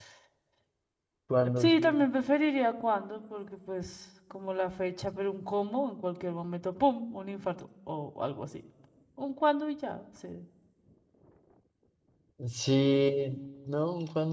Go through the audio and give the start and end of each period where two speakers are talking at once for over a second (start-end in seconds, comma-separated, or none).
none